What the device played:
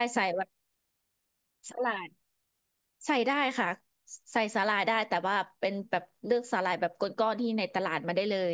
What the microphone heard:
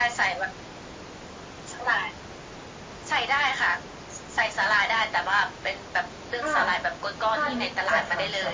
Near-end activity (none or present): present